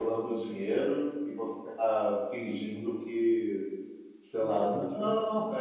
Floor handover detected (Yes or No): No